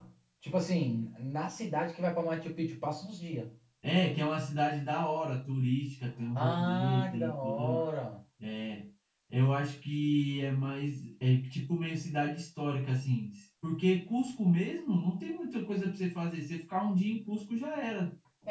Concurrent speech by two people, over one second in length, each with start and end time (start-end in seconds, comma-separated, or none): 6.4-7.8